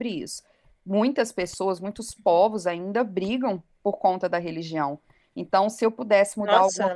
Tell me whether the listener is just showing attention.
Yes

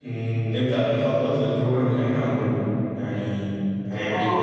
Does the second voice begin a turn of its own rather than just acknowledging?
Yes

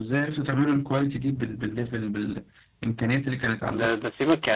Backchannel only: No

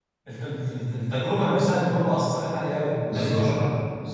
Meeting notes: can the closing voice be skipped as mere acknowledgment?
No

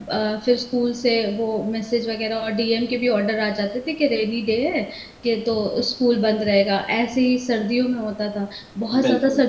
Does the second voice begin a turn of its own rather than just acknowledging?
No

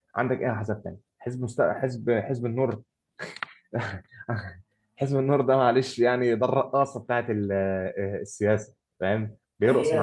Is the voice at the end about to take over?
Yes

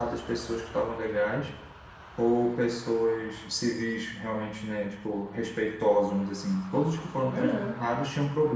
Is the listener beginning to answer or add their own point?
No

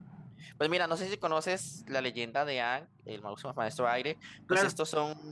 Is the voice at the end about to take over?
No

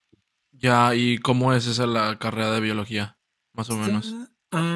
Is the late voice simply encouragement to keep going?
No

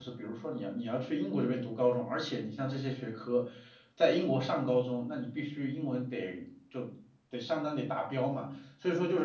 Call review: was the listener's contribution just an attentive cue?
Yes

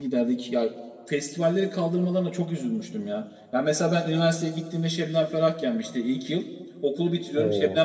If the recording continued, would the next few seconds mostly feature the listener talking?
No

